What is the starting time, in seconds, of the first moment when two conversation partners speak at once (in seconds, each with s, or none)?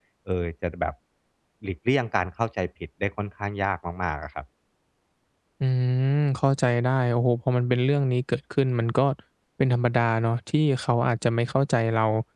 none